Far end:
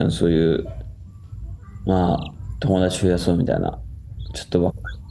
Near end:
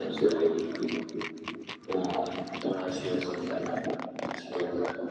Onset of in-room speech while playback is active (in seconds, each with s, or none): none